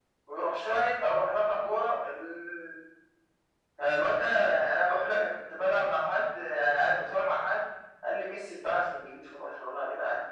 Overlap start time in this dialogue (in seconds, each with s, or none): none